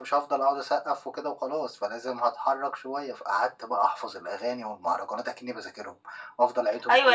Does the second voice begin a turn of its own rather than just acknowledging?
Yes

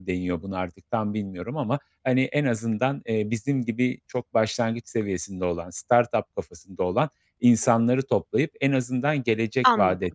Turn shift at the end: No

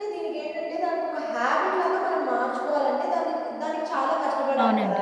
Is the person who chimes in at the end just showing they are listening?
Yes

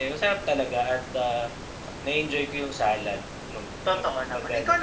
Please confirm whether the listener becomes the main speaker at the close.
Yes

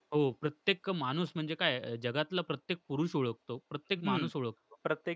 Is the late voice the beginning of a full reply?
Yes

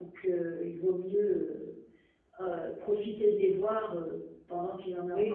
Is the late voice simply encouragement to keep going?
No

